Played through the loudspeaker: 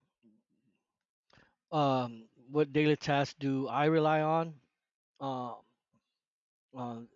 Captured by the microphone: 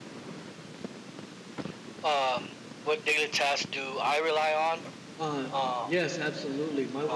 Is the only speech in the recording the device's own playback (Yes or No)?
No